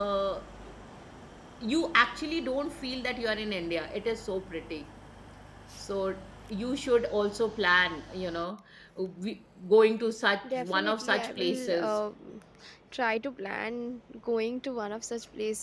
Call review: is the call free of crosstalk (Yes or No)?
No